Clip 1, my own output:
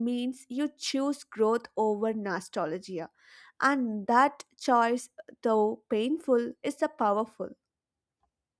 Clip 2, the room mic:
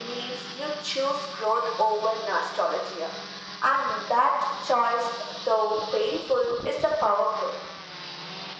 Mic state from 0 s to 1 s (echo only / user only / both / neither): echo only